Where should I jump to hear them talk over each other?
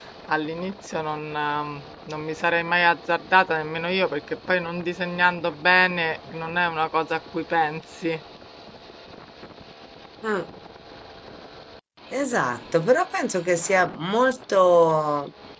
none

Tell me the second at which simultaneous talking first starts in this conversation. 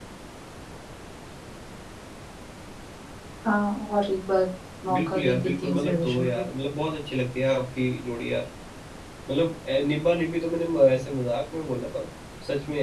4.9 s

